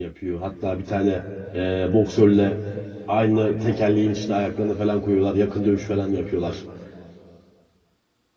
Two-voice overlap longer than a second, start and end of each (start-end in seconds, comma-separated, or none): none